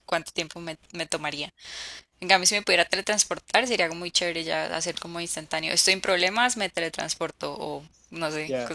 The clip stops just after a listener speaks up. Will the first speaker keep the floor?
No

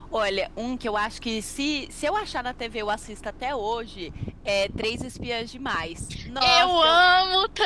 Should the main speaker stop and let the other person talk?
Yes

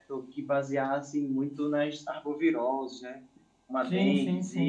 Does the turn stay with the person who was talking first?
No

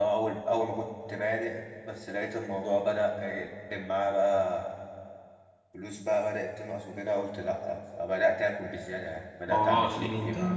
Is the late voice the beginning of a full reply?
Yes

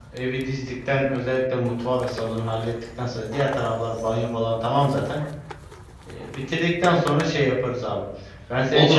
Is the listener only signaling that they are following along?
No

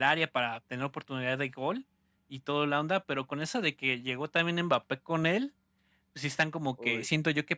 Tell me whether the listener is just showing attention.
Yes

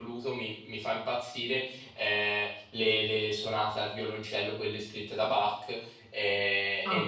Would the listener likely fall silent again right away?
Yes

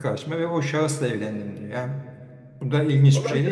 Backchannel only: No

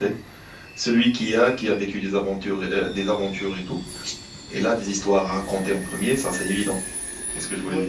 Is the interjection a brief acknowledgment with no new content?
No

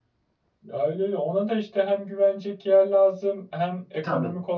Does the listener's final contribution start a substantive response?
No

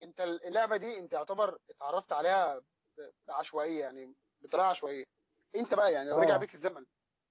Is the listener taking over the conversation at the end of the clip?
No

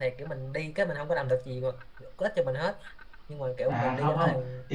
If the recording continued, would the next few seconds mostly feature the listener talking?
Yes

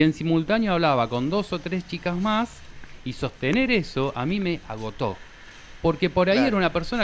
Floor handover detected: No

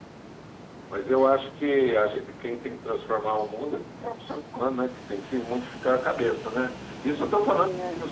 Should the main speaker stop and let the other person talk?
No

